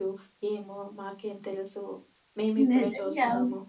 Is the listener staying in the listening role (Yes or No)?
No